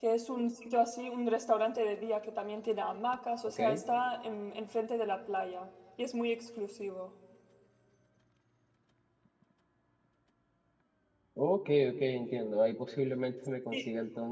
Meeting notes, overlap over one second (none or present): none